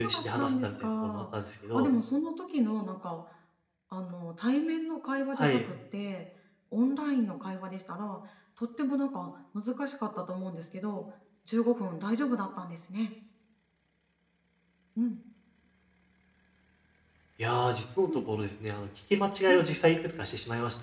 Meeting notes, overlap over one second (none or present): present